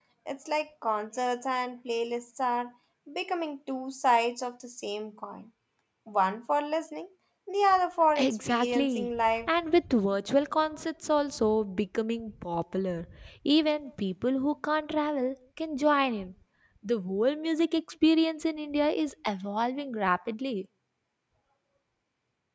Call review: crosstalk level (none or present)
present